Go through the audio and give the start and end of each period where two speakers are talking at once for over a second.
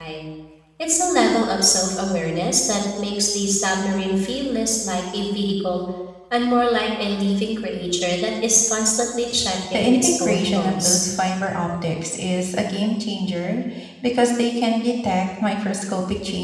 9.7-11.0

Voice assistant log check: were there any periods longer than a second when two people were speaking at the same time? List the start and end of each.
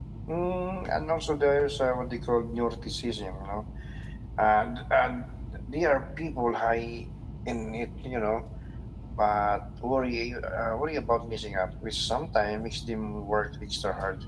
none

